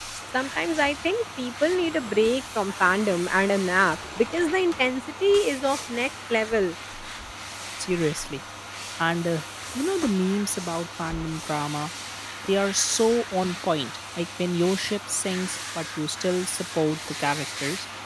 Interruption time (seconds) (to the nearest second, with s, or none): none